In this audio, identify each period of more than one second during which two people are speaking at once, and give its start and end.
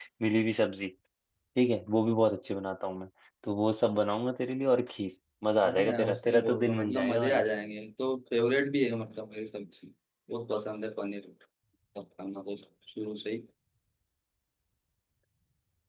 5.6-7.4

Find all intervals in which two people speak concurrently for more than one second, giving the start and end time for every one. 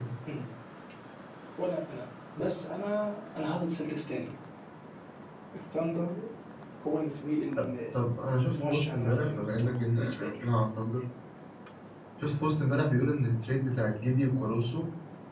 8.5-10.4

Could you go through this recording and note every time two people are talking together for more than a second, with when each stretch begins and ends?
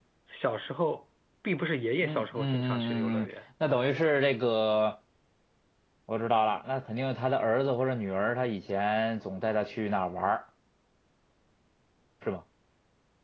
2.0-3.3

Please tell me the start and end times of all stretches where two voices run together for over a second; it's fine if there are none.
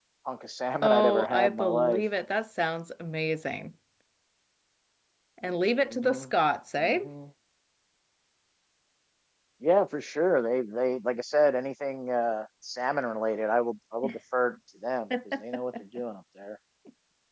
0.8-2.0

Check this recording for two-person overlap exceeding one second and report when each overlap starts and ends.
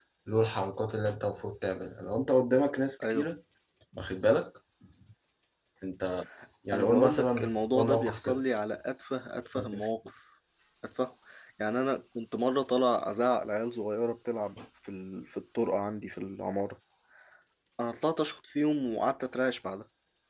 6.7-8.4

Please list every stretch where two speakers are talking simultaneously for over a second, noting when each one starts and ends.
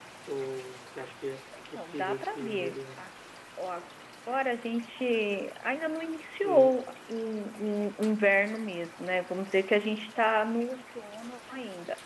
1.8-3.0

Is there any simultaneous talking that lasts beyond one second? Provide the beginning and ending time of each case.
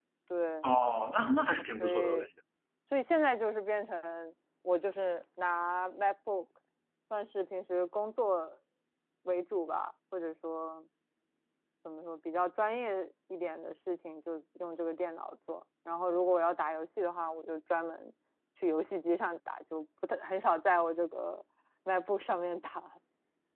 none

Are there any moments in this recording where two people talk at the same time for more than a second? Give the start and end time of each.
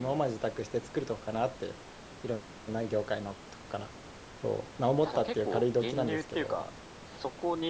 5.0-6.6

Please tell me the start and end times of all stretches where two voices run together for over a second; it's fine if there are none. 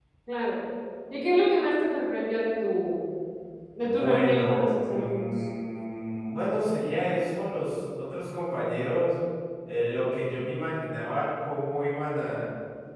3.8-5.2

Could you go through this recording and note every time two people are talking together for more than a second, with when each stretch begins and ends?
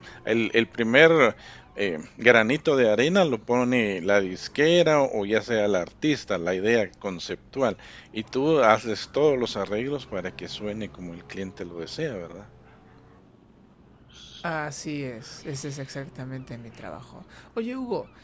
none

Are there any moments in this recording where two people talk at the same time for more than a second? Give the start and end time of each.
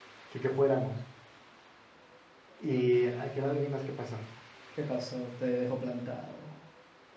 none

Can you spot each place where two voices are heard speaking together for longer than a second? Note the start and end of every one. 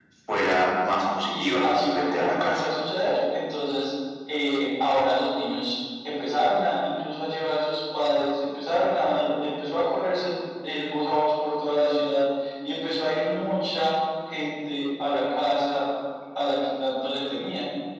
1.3-2.7

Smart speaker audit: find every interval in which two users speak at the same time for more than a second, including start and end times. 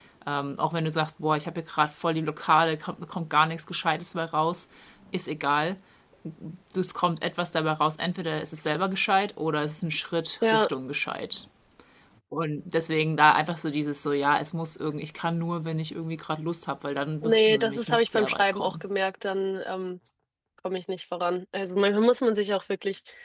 17.2-18.8

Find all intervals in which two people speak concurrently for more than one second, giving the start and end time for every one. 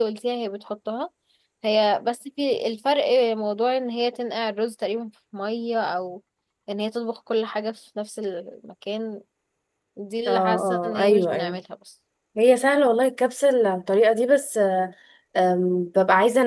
10.3-11.6

